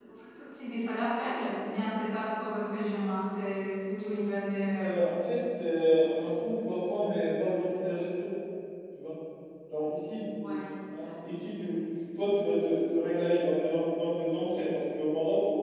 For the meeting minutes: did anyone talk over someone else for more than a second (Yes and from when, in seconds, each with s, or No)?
No